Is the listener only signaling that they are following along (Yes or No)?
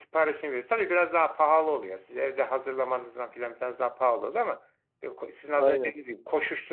Yes